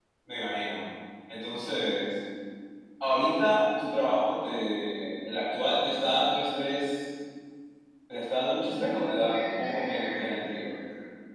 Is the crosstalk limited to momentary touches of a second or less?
No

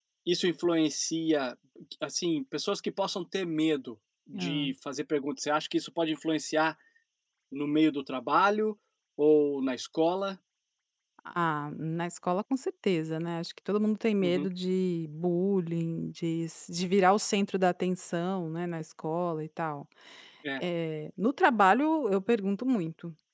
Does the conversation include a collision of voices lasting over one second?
No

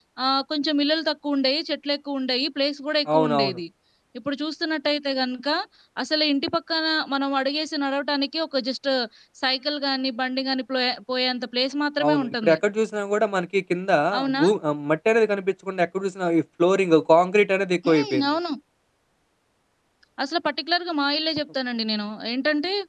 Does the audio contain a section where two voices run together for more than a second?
No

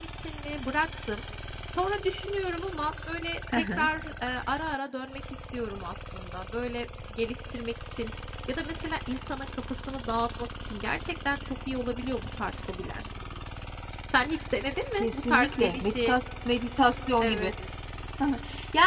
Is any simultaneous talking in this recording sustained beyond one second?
Yes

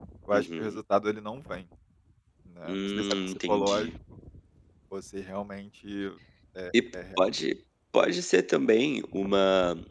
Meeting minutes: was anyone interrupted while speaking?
Yes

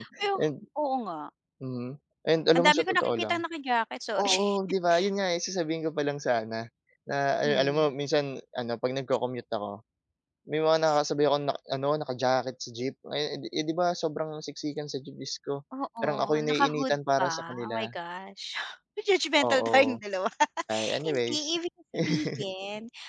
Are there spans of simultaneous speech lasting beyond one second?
Yes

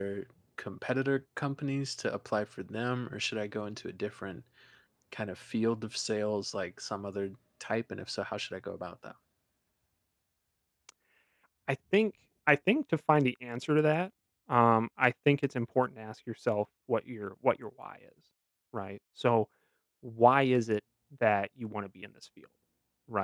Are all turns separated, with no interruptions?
Yes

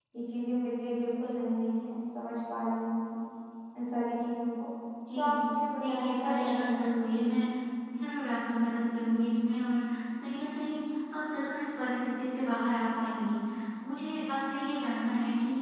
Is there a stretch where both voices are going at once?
Yes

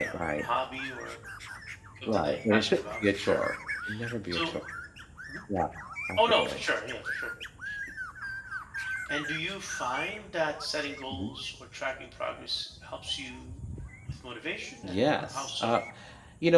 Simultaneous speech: Yes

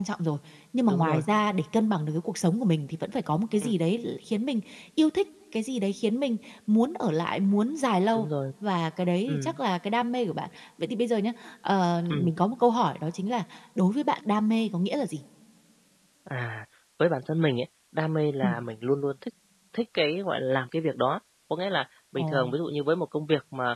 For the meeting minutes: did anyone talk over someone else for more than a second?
No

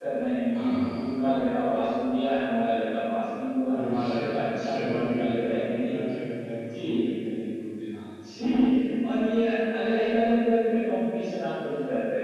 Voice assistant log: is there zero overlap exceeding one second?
No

